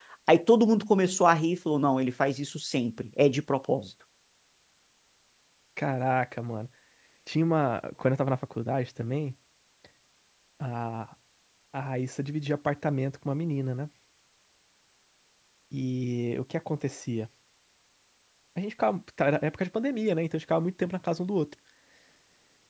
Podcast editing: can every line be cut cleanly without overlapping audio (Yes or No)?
Yes